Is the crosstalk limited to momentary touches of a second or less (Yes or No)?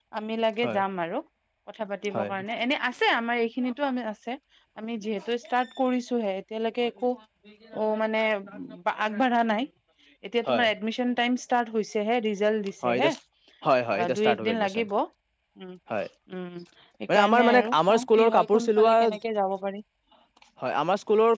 No